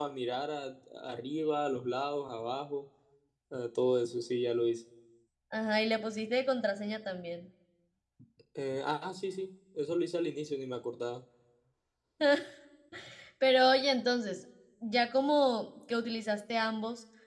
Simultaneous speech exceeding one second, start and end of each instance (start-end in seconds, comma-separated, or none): none